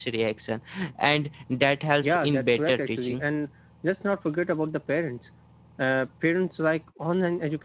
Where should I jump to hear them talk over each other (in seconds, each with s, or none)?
2.0 s